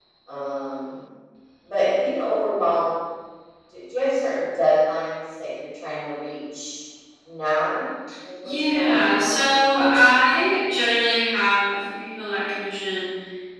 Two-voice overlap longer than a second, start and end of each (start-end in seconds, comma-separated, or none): 8.4-9.9